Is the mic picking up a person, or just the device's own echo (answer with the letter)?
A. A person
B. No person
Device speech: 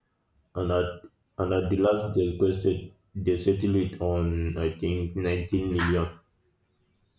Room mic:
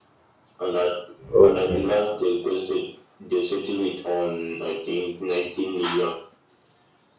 A